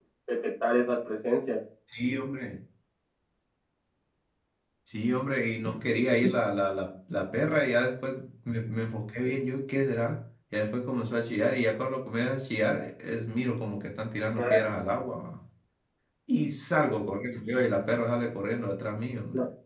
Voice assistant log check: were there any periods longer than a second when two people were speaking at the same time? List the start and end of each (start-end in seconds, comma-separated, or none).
none